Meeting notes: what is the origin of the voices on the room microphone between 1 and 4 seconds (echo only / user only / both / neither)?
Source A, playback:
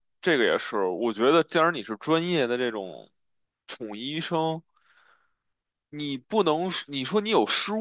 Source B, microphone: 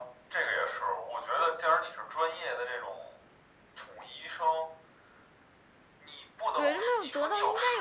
echo only